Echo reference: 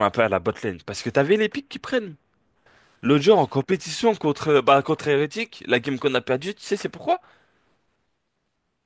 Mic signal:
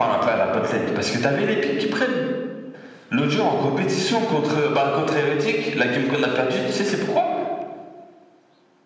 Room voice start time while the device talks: none

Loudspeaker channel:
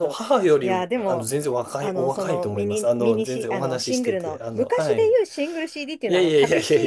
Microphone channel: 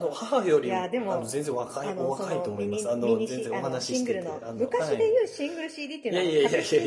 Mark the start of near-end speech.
none

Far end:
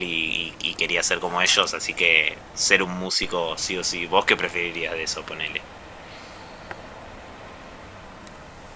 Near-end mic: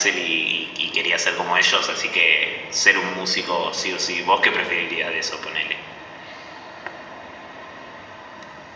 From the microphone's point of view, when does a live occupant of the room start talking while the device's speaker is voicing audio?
none

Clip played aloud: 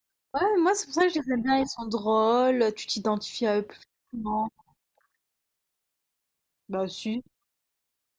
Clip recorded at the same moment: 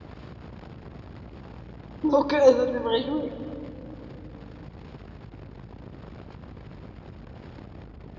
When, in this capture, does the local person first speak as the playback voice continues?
2.0 s

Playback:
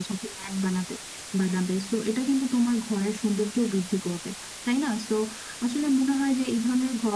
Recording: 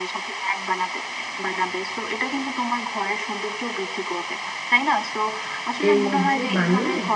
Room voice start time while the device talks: 5.9 s

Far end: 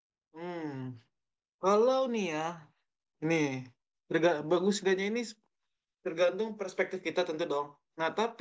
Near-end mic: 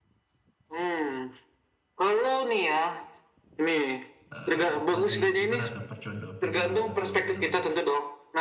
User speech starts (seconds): 4.3 s

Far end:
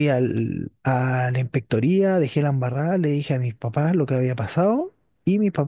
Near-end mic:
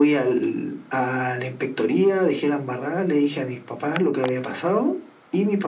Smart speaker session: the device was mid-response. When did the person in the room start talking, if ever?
none

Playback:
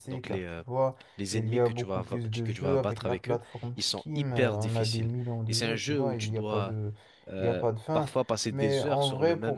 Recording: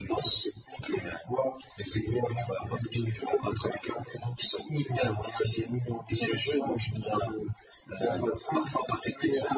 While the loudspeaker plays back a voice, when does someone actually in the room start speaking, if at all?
none

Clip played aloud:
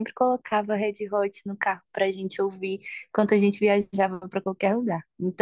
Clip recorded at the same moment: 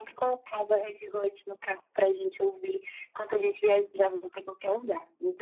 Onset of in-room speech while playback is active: none

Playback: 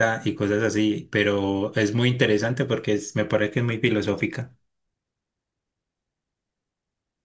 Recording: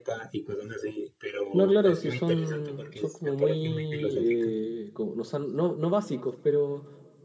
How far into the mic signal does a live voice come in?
1.5 s

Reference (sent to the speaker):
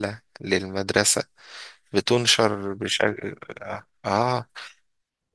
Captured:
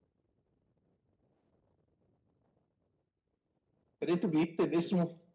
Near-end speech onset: 4.0 s

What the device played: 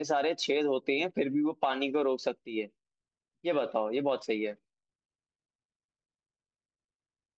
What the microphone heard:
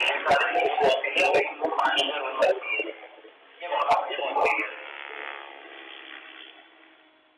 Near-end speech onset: none

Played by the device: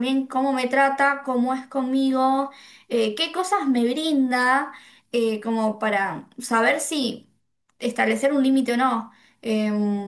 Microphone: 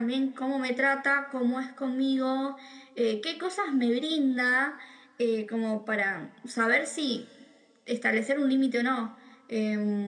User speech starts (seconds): none

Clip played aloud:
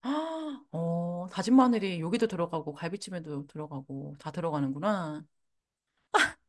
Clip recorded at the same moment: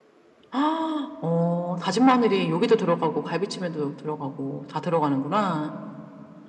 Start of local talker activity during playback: none

